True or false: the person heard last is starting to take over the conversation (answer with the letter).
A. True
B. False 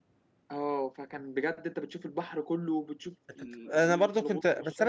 A